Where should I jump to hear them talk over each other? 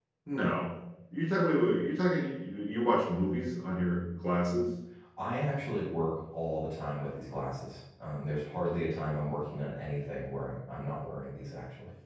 none

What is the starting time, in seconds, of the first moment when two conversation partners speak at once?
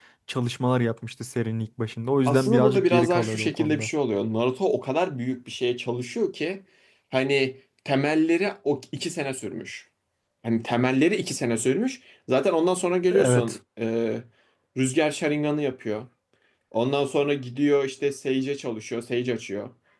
2.3 s

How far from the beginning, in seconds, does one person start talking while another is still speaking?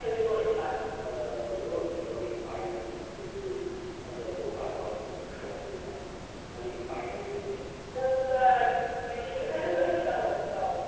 none

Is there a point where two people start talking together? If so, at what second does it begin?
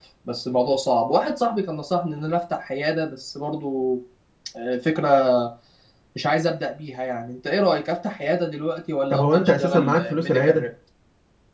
9.1 s

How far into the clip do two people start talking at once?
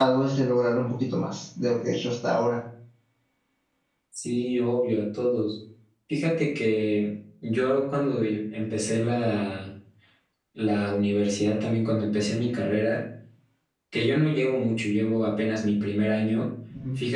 none

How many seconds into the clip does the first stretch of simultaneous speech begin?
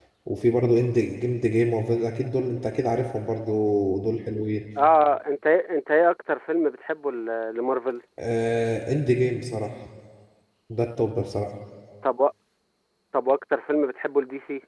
none

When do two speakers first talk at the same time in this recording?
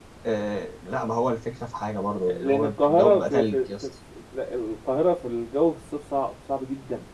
2.3 s

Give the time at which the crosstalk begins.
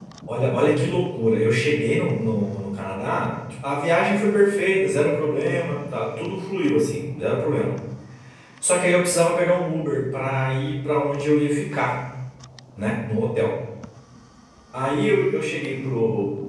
none

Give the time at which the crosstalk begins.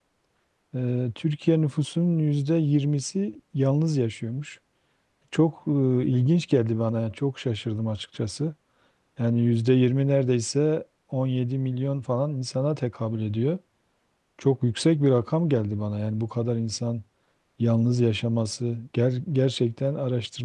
none

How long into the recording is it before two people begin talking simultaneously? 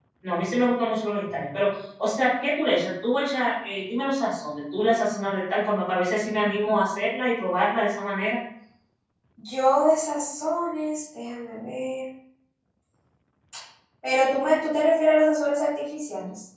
none

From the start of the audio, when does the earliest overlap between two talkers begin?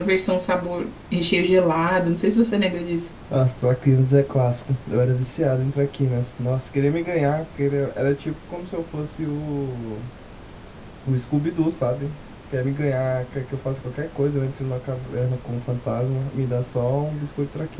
none

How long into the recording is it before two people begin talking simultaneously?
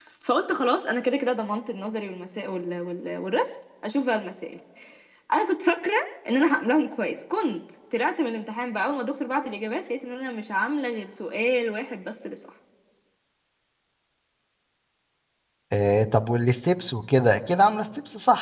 none

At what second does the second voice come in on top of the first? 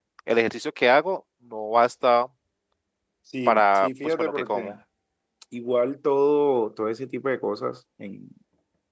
3.5 s

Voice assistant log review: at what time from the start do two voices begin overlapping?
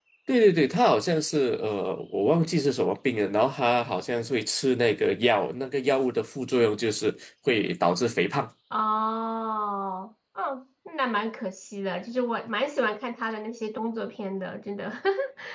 none

